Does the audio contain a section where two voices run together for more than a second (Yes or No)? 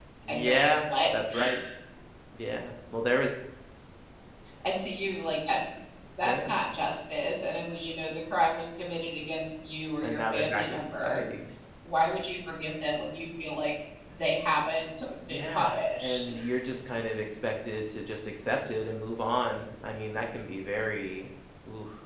Yes